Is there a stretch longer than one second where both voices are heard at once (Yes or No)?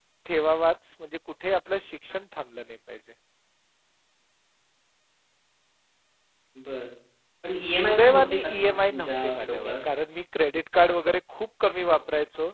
Yes